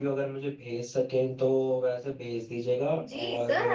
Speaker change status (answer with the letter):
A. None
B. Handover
B